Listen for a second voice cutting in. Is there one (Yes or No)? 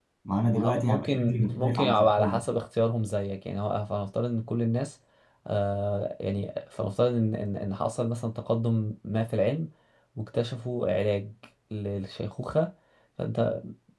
Yes